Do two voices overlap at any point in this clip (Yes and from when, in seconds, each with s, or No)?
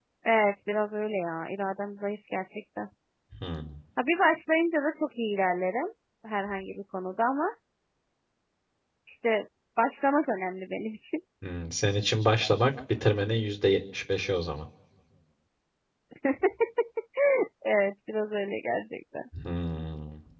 No